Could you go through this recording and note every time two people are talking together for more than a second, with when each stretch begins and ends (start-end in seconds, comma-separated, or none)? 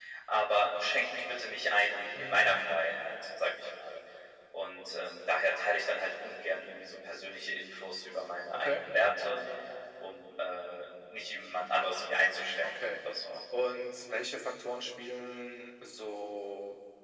none